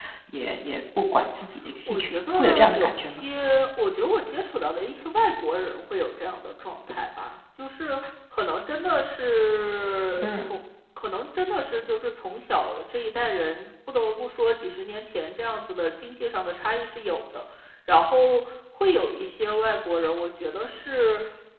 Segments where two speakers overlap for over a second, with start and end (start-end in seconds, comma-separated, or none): 1.9-3.2